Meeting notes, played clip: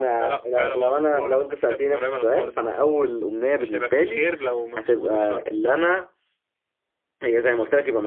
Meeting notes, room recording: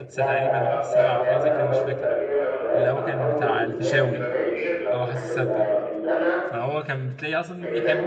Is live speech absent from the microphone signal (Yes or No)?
No